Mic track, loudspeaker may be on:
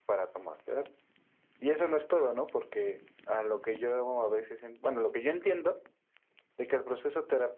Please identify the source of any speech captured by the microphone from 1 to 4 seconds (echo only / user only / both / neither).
echo only